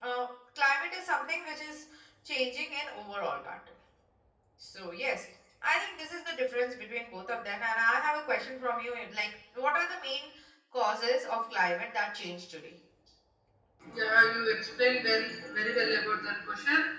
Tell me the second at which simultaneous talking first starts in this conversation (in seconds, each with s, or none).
none